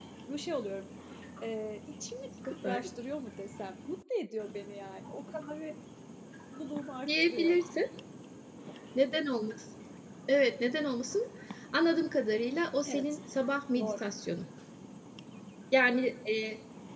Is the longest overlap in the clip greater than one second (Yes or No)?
No